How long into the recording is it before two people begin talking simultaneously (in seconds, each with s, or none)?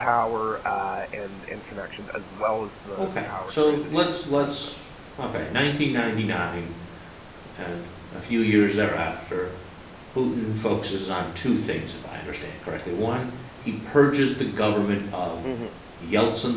3.0 s